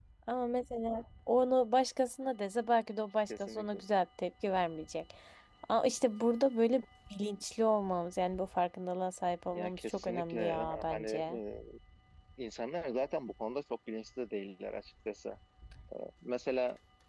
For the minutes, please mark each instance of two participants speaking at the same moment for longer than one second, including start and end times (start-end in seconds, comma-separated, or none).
9.5-11.4